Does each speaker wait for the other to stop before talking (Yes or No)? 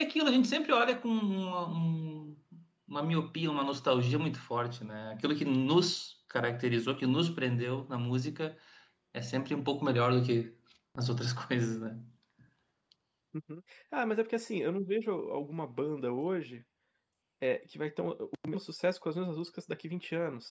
Yes